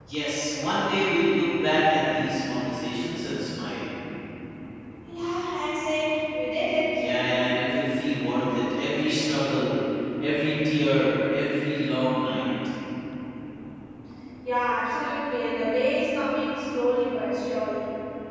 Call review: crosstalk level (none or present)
none